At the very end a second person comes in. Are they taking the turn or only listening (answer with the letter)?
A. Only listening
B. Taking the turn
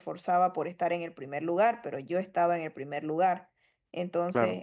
A